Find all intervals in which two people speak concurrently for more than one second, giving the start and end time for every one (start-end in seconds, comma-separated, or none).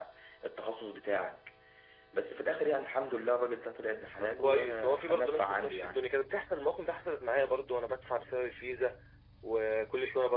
4.2-6.1